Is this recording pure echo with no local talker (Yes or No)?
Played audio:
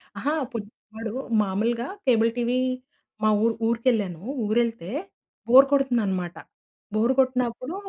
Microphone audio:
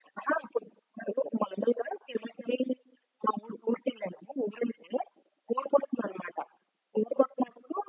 Yes